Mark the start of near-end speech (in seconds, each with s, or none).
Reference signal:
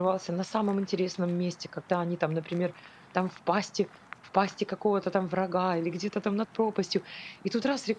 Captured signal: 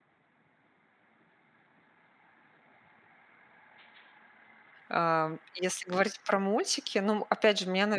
4.9 s